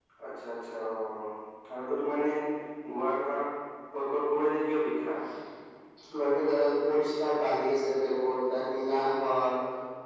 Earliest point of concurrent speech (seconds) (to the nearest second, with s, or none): none